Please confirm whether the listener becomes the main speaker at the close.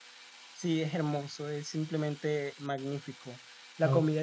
No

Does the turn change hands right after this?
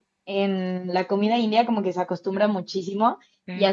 No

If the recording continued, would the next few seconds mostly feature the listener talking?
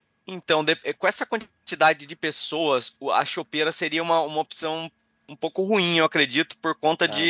No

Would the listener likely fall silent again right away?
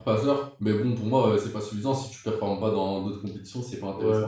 No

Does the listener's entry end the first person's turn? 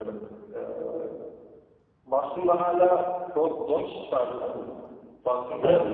Yes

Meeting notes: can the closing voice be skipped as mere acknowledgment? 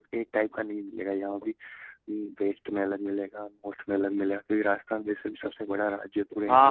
No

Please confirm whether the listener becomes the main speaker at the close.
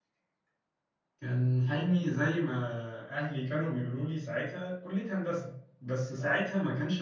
No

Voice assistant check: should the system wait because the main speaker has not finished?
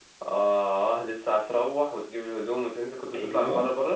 No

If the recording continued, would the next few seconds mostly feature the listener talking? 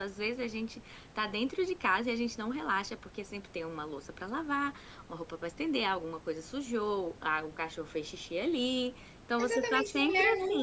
Yes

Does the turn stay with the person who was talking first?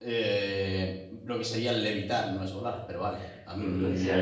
No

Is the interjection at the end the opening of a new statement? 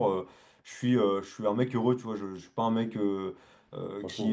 No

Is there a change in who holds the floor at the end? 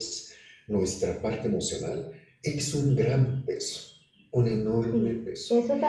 Yes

